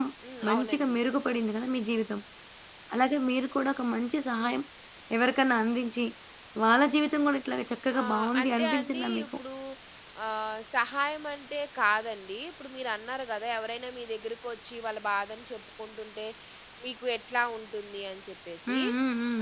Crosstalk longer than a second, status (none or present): present